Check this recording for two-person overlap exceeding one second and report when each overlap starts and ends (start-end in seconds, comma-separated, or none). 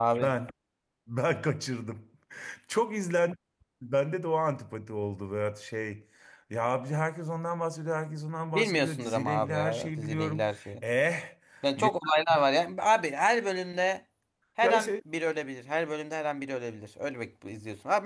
8.5-10.5